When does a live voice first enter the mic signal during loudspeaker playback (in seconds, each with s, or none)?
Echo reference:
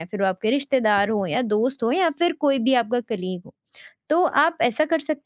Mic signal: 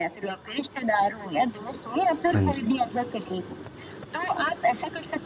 2.3 s